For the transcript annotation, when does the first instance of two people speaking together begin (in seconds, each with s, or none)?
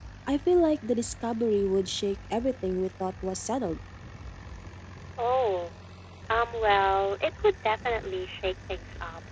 none